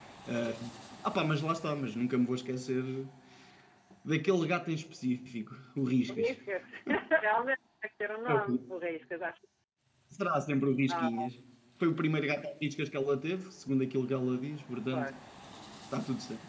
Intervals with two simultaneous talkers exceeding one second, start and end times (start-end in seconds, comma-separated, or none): none